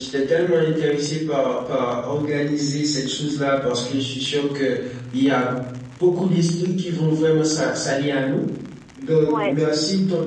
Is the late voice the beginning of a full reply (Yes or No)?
No